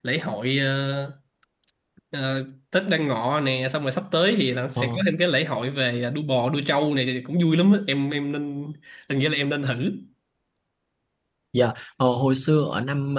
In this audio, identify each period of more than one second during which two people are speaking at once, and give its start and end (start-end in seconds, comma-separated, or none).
none